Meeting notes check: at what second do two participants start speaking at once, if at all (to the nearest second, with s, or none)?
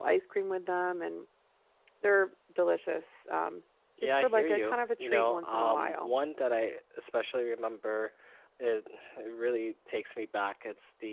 4 s